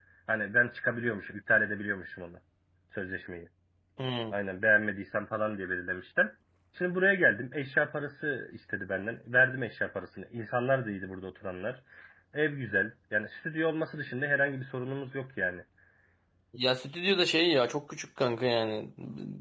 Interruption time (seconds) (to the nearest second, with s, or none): none